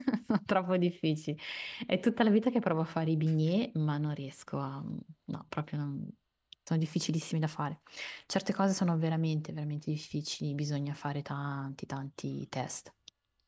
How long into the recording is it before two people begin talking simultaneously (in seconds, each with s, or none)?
none